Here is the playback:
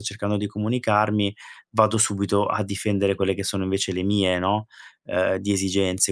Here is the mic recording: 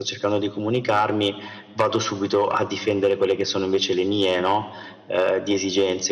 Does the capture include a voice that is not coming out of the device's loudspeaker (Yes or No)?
No